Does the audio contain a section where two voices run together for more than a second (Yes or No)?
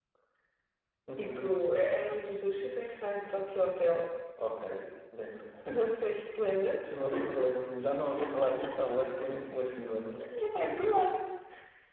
No